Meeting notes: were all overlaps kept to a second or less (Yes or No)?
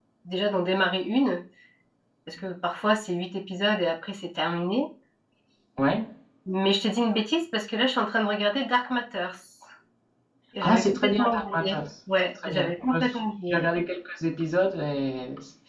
No